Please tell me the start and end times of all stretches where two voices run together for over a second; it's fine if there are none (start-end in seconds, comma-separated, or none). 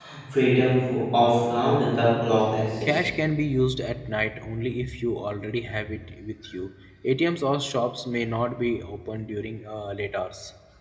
none